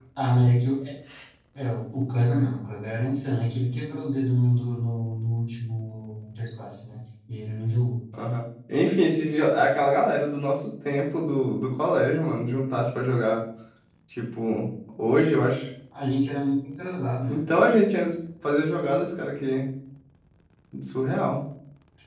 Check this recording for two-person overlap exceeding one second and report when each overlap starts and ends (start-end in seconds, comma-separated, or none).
none